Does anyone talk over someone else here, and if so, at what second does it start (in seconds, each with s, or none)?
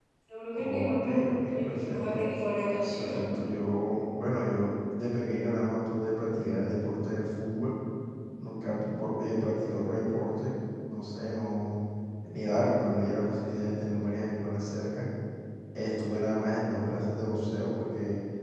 0.5 s